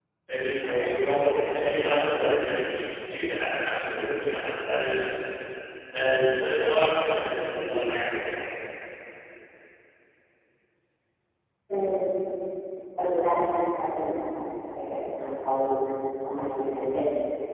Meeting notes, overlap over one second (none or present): present